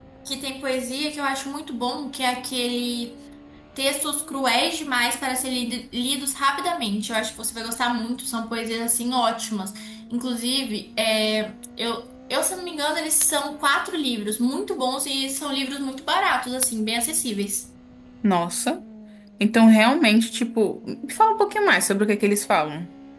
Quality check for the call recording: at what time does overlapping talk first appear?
none

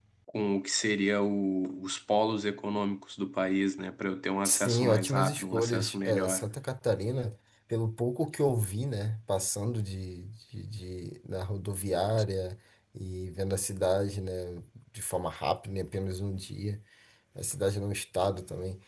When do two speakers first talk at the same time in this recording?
4.4 s

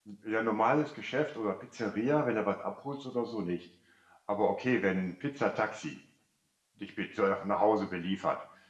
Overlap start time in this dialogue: none

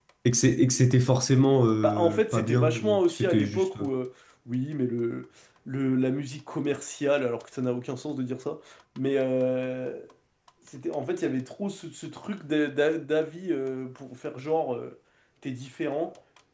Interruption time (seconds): 1.8 s

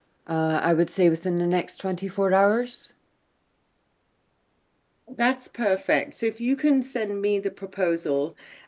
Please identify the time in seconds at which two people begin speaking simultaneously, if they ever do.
none

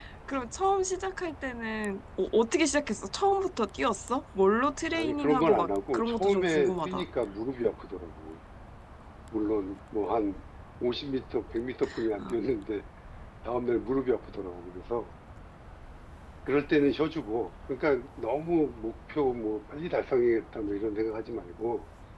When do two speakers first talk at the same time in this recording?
4.9 s

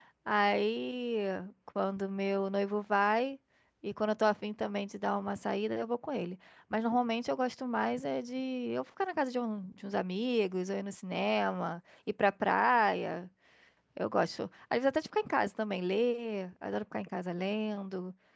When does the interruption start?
none

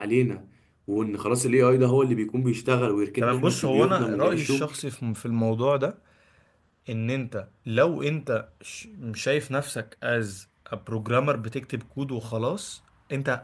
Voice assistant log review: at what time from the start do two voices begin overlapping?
3.2 s

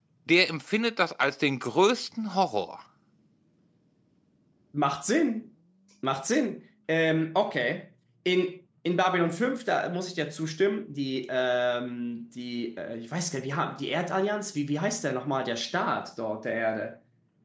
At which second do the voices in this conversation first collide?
none

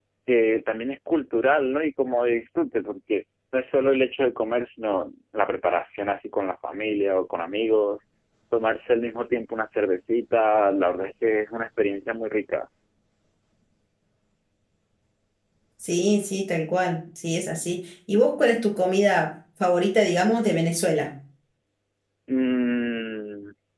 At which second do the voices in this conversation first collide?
none

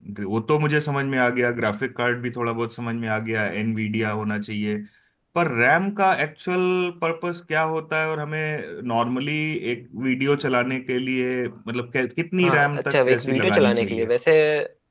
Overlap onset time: 12.4 s

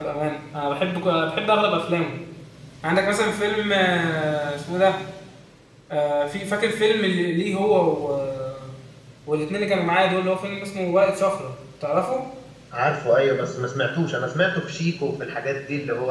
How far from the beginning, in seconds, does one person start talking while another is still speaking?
none

